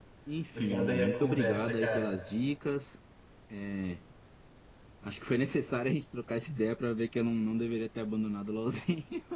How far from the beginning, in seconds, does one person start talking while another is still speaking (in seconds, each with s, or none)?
0.6 s